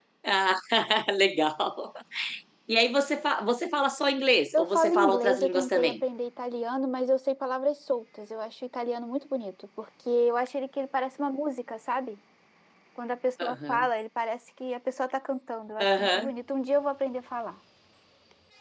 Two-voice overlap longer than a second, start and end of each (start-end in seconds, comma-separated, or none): 4.5-5.9